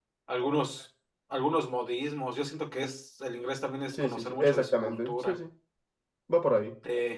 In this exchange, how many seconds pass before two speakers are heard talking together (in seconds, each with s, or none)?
3.9 s